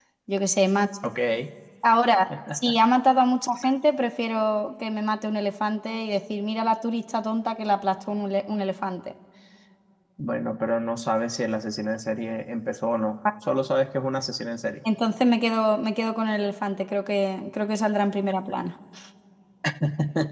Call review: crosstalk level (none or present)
none